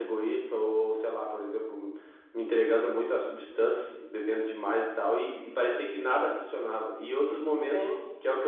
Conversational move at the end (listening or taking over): listening